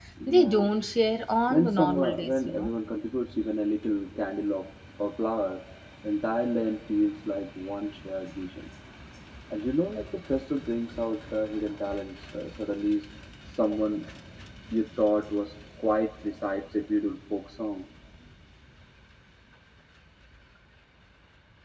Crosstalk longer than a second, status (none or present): present